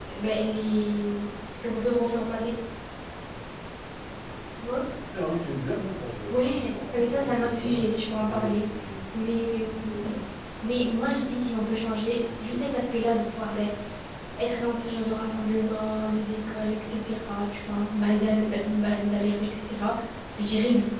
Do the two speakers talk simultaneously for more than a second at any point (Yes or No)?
Yes